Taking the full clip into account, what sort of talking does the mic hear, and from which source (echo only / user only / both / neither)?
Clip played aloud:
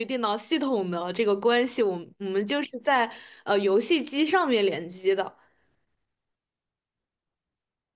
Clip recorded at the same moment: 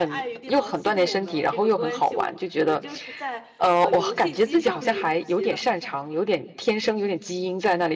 both